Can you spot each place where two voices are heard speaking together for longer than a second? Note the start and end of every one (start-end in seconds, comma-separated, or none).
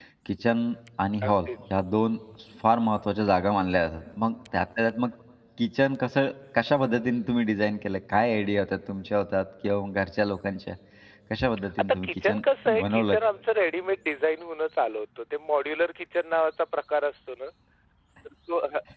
11.8-13.2